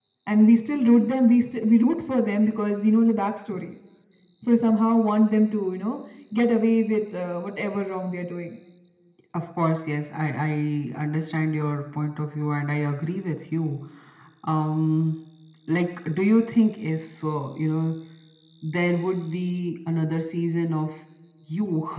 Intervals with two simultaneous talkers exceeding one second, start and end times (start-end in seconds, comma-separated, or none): none